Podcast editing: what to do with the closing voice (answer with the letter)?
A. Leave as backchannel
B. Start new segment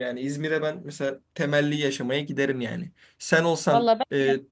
A